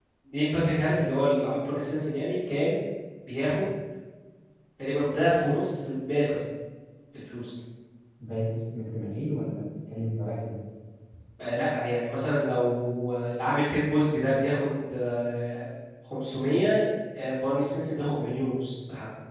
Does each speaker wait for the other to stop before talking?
Yes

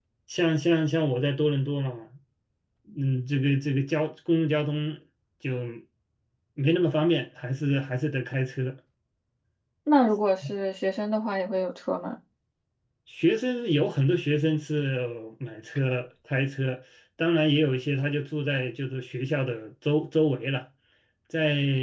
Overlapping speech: No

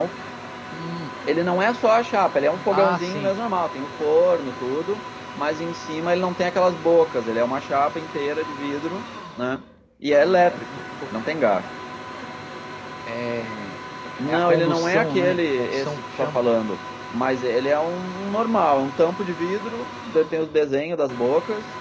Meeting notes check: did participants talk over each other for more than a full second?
Yes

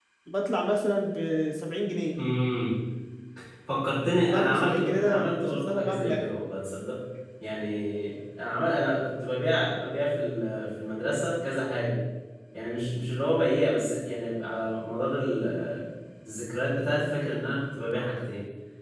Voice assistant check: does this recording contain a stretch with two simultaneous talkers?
Yes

